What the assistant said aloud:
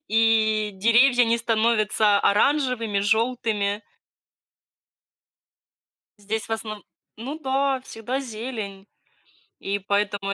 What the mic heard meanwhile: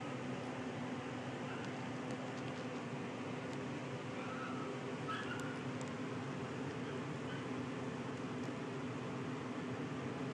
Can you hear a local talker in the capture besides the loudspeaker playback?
No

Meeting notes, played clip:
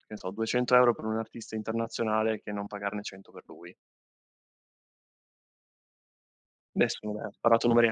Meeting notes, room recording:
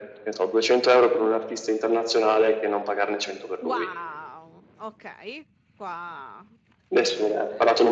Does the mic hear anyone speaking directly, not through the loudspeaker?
Yes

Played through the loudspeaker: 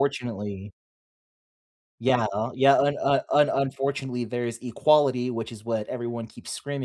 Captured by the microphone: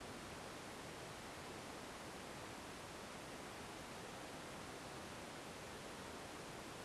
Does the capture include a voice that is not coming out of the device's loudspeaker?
No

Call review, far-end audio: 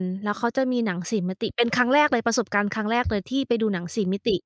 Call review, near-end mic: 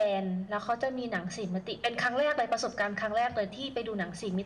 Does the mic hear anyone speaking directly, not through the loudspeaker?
No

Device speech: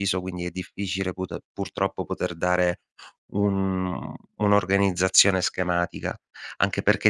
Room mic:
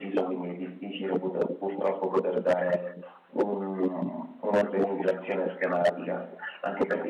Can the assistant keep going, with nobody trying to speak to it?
Yes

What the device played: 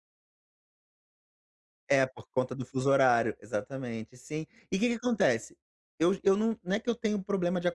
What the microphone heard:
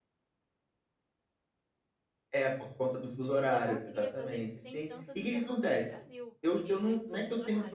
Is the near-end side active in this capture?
Yes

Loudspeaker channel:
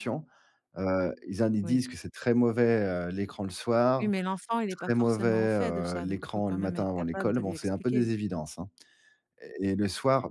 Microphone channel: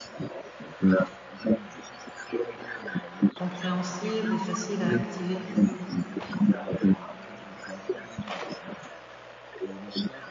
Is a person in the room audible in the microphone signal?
Yes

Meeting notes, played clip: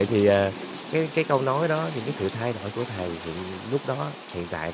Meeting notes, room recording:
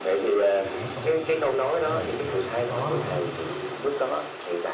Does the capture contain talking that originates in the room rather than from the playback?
Yes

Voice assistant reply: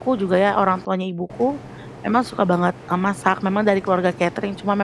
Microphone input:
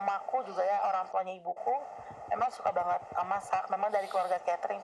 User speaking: No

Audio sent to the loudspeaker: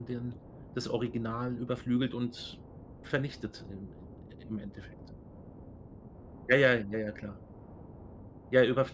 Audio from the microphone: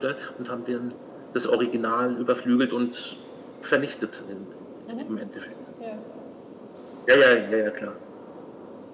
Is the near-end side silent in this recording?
No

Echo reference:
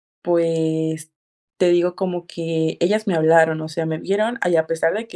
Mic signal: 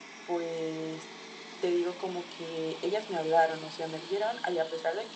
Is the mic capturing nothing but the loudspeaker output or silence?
Yes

